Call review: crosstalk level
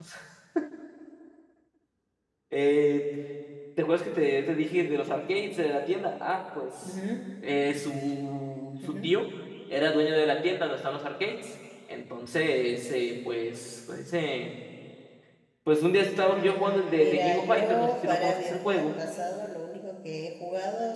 present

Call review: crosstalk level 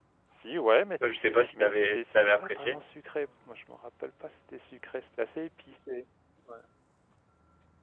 present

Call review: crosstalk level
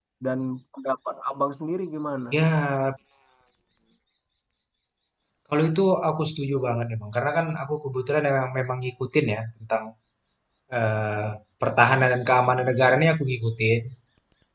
none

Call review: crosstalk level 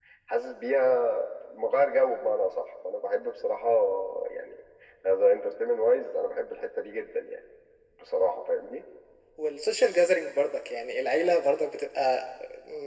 none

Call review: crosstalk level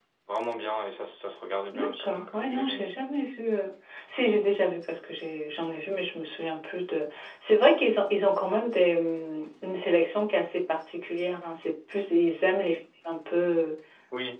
present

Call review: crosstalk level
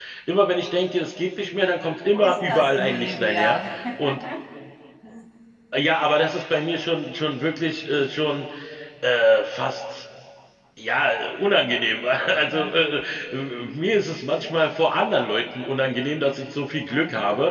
present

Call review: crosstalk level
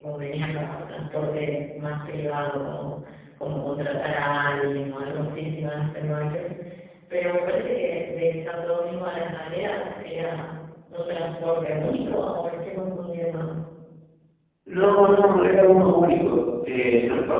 none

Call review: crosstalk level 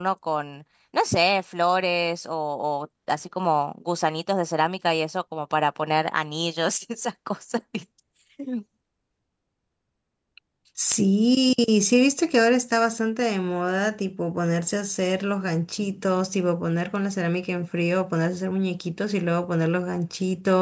none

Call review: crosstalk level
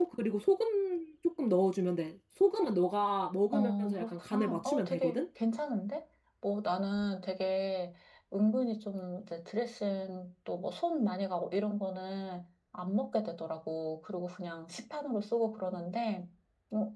present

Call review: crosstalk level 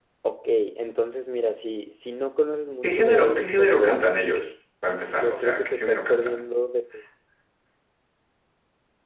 present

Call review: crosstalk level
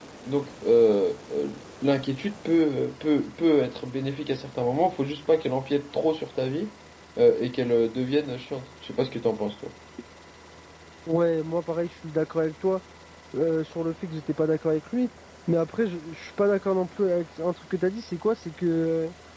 none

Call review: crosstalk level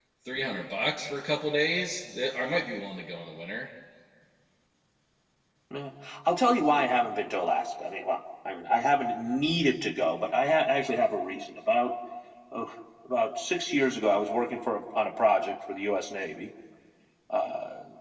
none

